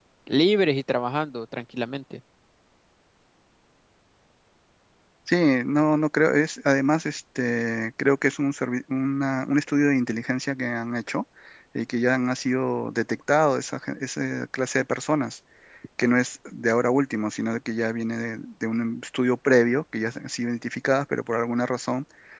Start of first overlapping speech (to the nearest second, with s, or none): none